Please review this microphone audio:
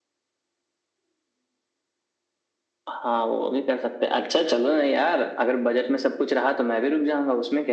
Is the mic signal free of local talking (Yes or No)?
Yes